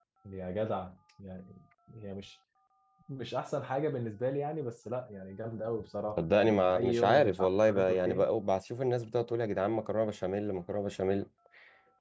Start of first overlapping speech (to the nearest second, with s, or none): 6 s